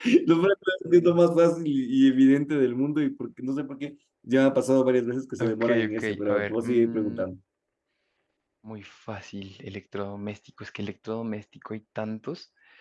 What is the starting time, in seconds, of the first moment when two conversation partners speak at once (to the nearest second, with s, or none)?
5 s